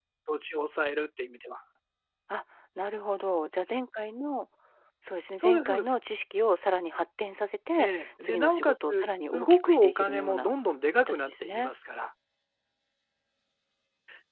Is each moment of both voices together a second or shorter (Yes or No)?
No